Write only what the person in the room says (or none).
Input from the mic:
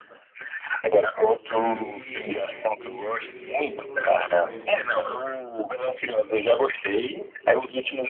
Ele, ele, ele, ele é diretor e ator ao mesmo tempo, né?